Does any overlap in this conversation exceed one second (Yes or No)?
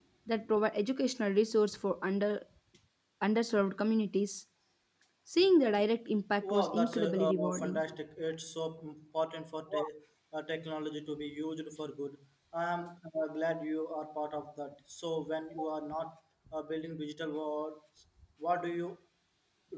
Yes